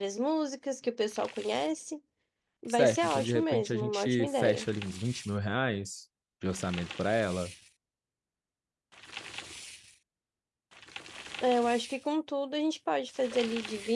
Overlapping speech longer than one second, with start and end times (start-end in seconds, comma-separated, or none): 2.7-4.7